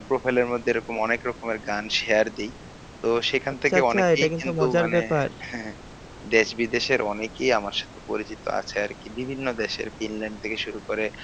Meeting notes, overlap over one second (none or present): present